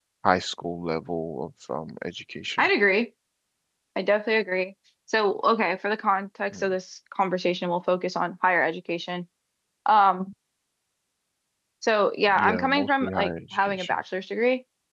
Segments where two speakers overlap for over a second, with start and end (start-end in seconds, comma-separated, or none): 12.3-14.0